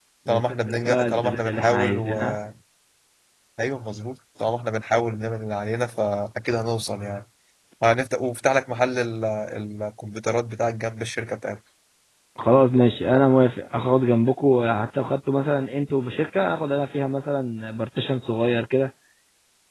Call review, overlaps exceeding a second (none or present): present